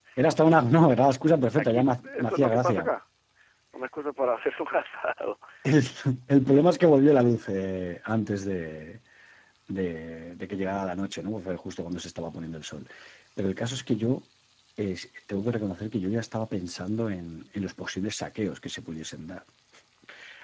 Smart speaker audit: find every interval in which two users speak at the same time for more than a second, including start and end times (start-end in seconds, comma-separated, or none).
1.6-2.9